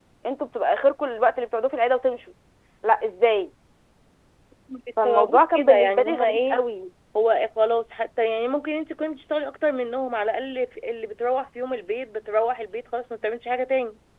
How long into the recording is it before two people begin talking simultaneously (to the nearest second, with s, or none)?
5 s